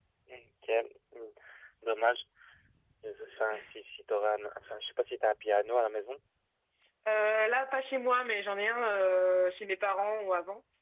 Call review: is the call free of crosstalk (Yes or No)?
Yes